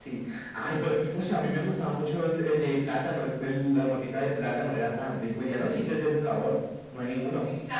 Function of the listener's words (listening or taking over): taking over